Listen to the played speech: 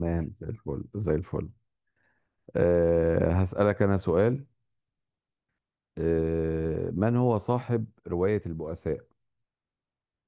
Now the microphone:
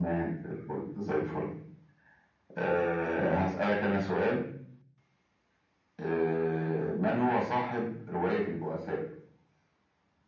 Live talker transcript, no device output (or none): none